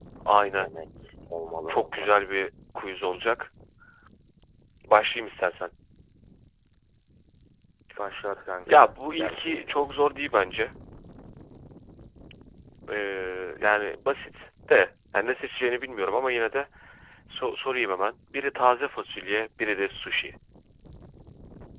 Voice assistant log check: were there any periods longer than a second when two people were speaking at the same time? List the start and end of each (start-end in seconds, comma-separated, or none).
8.7-9.9